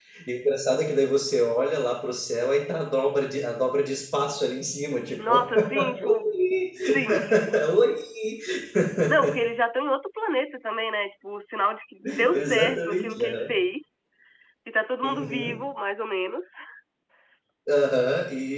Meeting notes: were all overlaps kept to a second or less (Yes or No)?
No